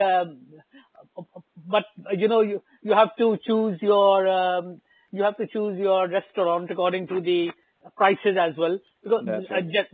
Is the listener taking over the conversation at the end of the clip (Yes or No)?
No